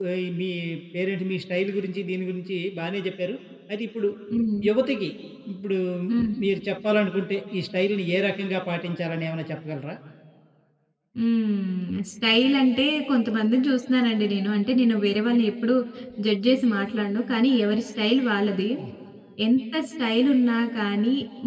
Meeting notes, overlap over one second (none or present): none